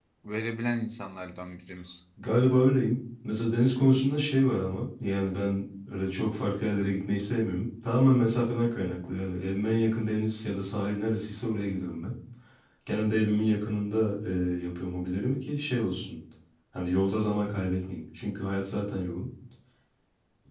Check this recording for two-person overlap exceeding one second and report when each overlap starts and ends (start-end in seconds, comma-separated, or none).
none